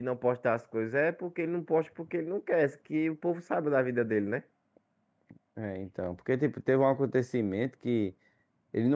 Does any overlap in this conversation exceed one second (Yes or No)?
No